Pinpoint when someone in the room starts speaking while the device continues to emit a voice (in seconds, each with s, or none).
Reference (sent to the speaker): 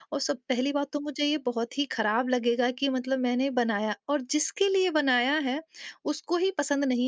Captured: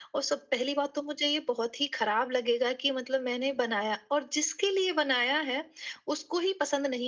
none